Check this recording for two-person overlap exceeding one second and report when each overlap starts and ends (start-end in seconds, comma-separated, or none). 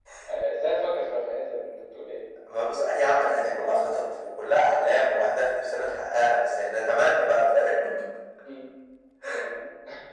none